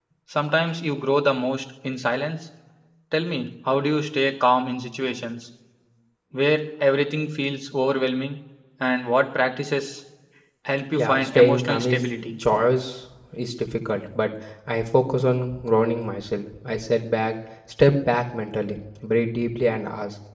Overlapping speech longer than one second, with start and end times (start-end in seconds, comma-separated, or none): 10.9-12.3